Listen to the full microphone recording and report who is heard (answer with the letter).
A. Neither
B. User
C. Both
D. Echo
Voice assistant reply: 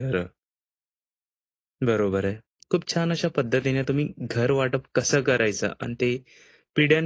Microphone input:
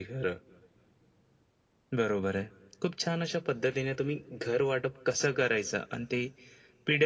D